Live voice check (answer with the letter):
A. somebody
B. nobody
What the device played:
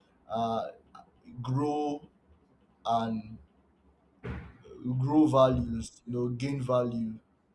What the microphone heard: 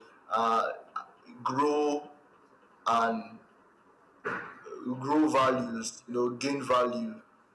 B